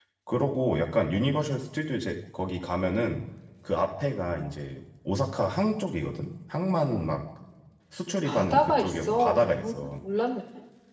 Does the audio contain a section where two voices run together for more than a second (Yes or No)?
Yes